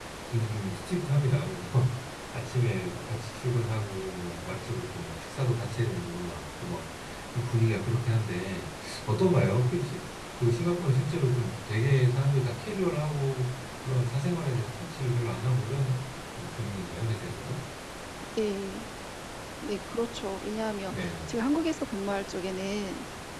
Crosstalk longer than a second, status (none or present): none